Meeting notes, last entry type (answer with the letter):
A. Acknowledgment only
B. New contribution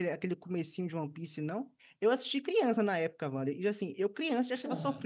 A